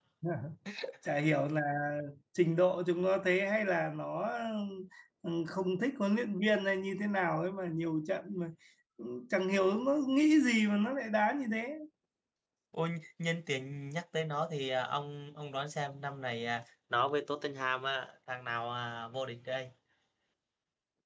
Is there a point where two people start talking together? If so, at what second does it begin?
none

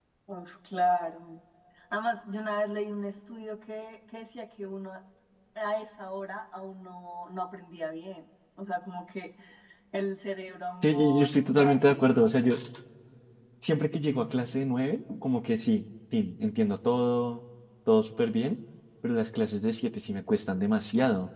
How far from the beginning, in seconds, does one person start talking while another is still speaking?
10.8 s

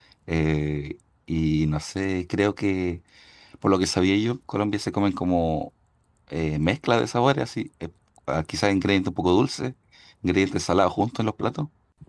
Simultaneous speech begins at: none

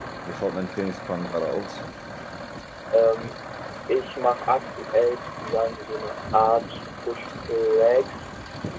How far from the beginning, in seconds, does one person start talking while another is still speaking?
none

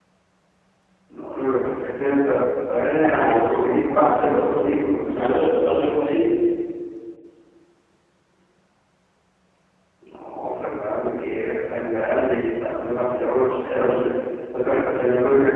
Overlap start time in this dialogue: 3.0 s

